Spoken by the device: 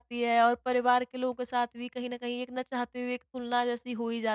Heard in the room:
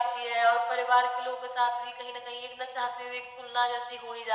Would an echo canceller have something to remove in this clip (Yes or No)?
Yes